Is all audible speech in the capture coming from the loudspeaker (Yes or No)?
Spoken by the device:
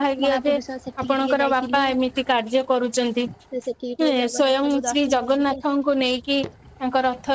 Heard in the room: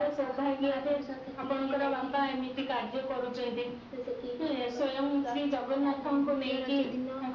No